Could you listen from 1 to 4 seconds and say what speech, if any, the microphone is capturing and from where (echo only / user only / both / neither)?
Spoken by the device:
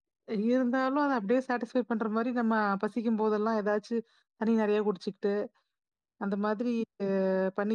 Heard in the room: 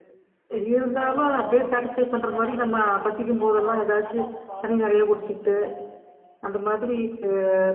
both